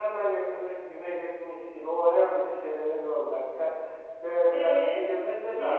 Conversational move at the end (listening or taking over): taking over